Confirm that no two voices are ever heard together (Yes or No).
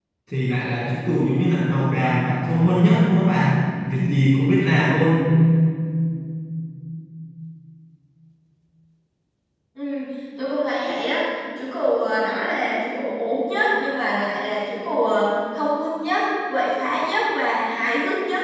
Yes